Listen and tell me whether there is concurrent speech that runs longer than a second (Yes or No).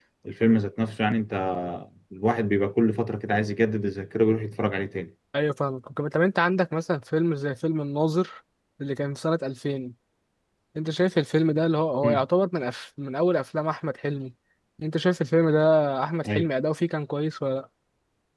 No